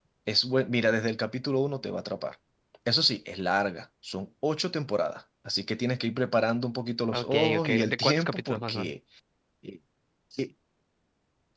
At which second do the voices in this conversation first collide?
7.1 s

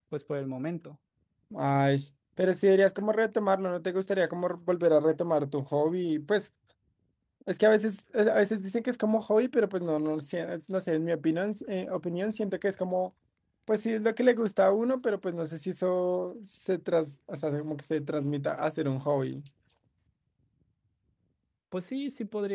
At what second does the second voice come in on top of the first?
none

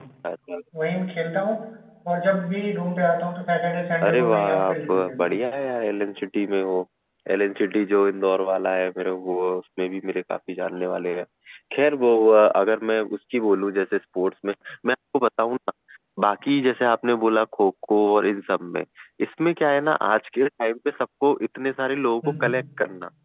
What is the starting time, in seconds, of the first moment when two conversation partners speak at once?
4.0 s

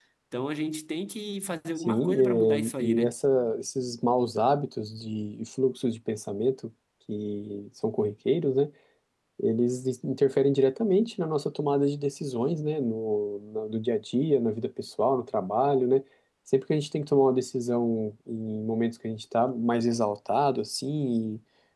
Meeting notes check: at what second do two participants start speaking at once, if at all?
1.8 s

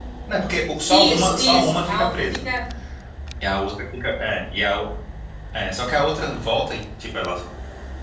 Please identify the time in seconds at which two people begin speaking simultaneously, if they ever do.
0.9 s

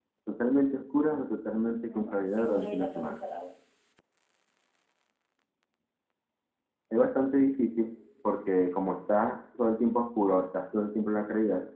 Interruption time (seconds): 1.9 s

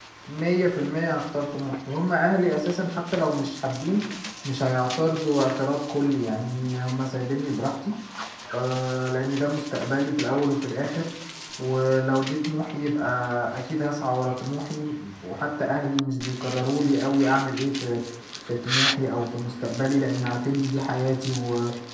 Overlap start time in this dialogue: none

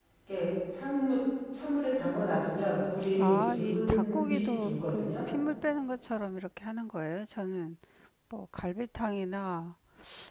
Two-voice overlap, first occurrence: 3.2 s

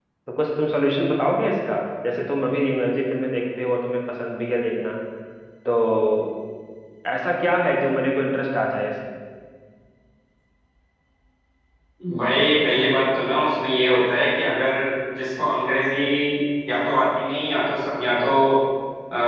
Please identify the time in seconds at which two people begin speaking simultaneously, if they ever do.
none

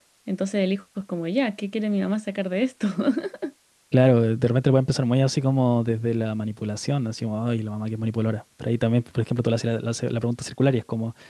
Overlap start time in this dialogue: none

